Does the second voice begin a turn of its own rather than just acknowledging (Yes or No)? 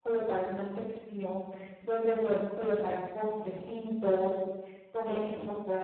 No